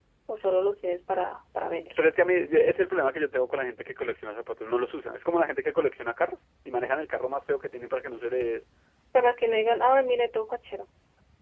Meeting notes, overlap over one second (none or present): none